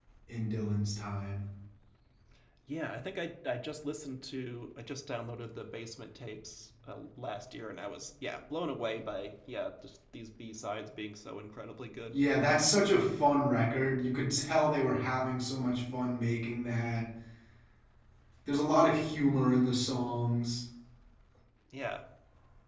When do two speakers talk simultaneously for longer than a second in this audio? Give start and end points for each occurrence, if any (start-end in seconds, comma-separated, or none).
none